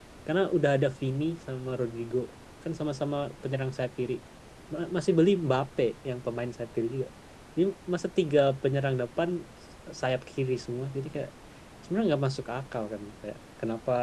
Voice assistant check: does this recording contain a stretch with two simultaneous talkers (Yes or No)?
No